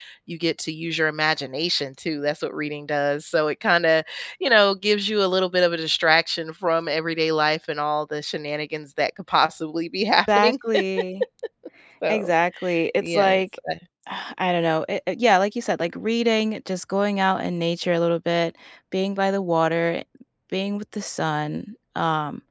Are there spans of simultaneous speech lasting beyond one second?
No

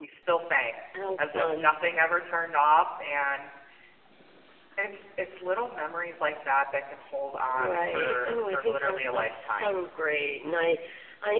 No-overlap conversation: No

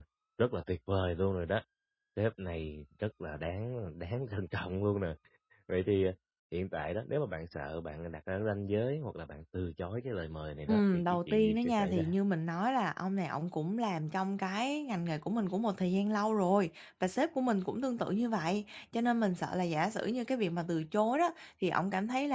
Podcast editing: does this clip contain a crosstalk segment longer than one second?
Yes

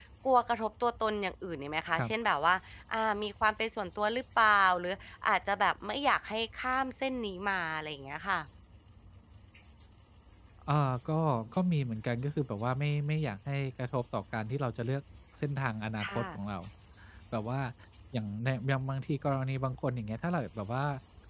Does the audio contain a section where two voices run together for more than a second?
No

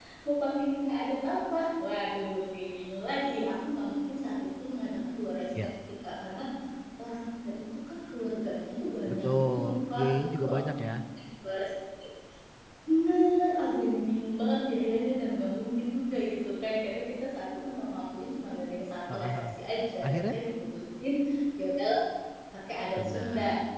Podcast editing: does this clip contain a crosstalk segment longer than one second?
Yes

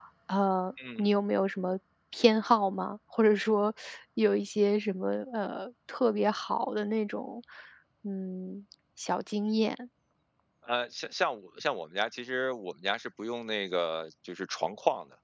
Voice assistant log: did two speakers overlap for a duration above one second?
No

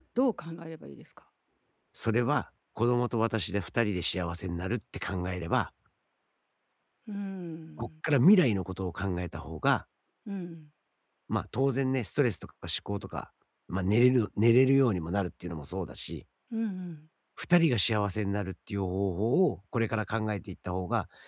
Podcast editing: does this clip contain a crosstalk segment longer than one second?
No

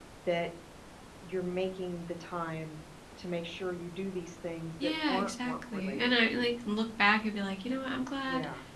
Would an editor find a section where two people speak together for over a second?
Yes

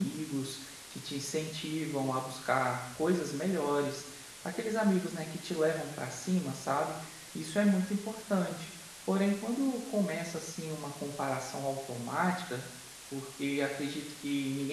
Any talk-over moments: No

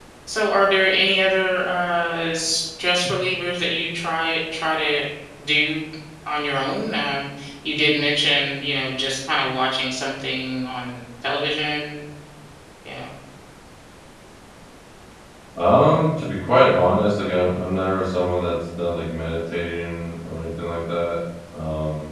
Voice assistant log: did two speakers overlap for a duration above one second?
No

